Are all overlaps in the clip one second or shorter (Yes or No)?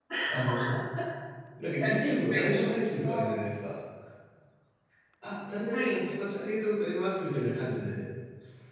No